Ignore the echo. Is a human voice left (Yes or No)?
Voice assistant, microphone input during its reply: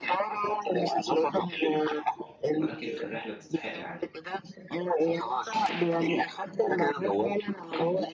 Yes